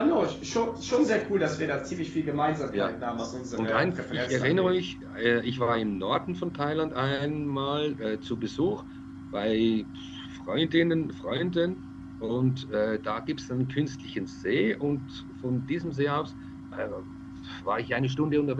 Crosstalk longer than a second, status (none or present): present